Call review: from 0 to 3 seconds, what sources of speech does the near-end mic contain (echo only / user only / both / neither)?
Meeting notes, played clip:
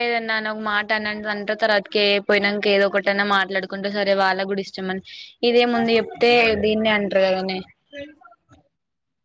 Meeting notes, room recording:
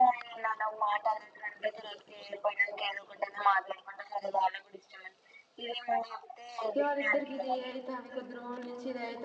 echo only